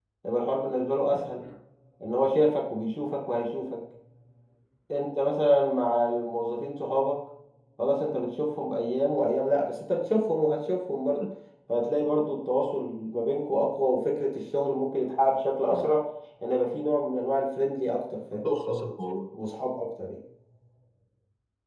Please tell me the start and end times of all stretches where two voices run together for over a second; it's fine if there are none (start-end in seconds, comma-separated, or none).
none